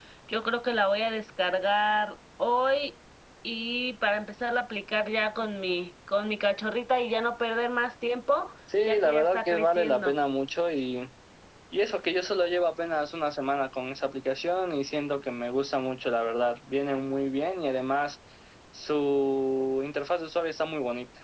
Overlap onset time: 8.7 s

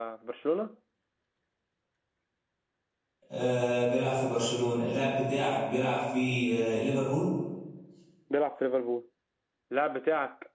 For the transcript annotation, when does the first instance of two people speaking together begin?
none

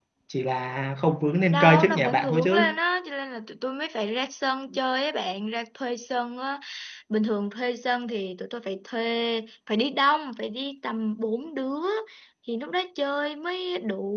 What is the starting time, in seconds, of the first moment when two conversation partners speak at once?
1.5 s

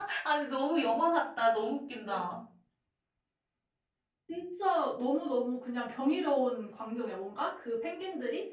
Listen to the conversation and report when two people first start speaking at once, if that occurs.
none

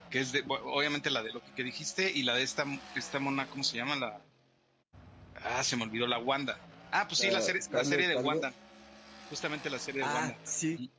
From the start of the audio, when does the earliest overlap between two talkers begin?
7.2 s

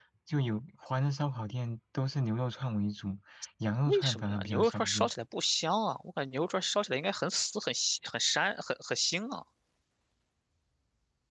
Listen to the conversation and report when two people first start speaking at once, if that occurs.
3.9 s

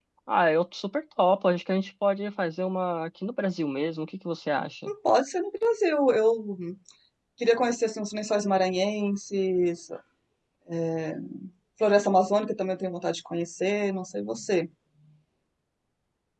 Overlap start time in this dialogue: none

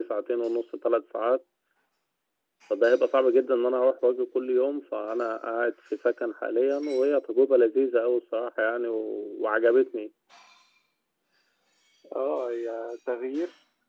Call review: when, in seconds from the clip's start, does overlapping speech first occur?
none

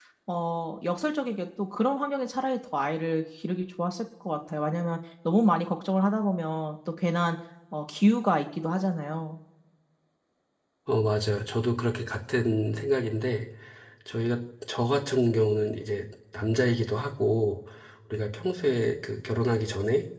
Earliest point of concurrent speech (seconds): none

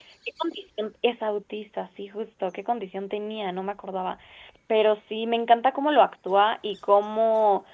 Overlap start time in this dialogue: none

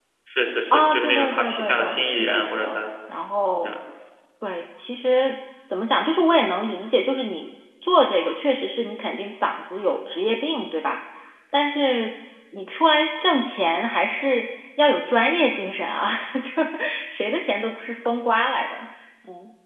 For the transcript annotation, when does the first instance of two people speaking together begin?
0.7 s

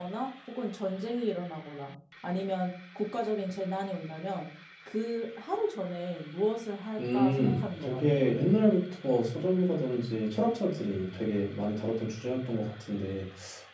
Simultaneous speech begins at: 7.0 s

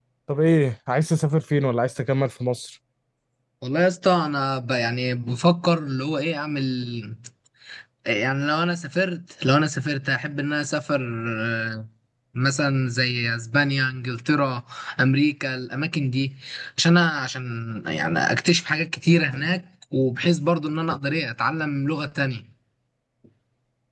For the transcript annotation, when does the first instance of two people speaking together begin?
none

